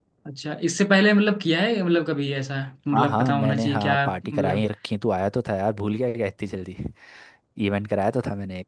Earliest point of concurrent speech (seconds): 2.9 s

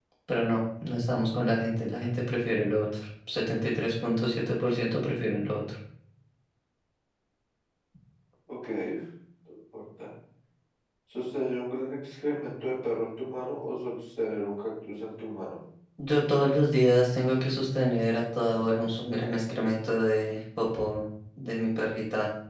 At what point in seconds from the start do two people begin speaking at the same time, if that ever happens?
none

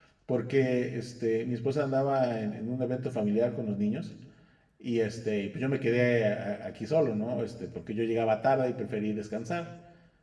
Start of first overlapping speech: none

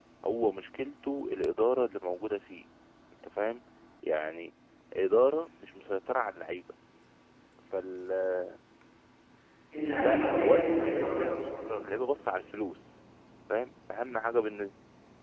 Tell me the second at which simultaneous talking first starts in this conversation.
10.0 s

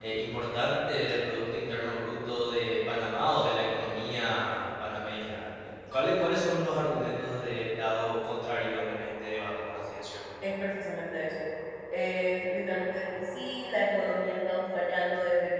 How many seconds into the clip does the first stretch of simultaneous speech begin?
none

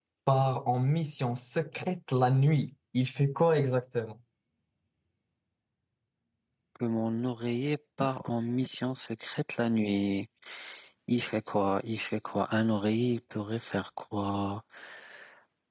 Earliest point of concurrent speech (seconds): none

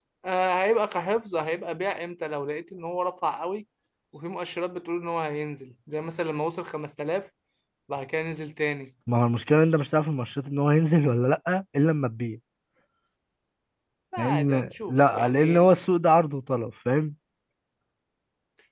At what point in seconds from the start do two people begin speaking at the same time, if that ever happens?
14.2 s

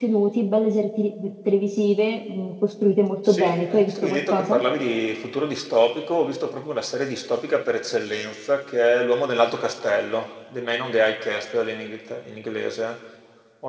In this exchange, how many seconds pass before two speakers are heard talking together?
3.2 s

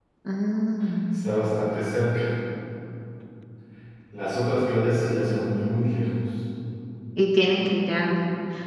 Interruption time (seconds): none

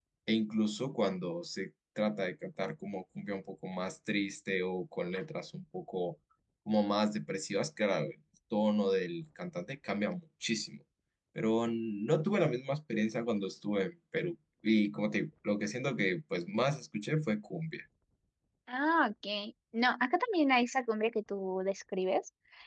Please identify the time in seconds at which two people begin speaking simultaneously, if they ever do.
none

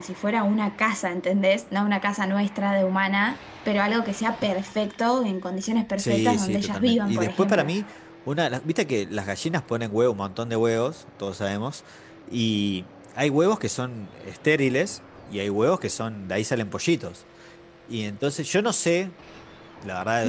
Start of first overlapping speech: 6.0 s

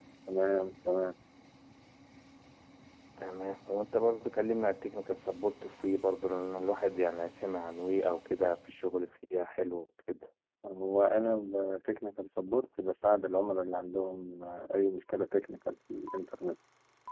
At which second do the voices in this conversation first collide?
none

